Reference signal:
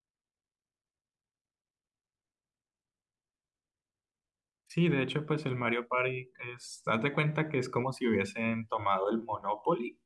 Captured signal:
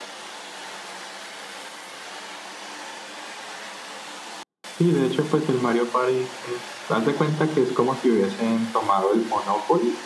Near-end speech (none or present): none